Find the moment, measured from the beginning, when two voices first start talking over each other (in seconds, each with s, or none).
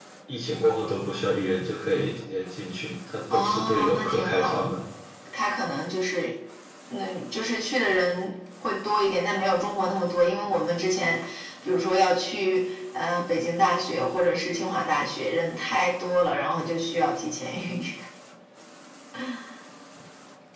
3.3 s